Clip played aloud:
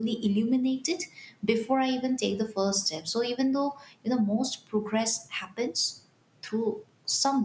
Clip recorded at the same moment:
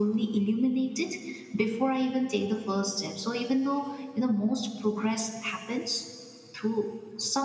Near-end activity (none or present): none